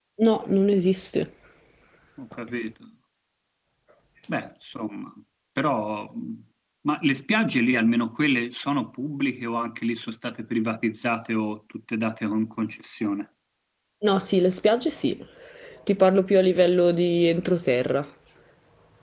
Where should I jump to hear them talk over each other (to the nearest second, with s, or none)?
none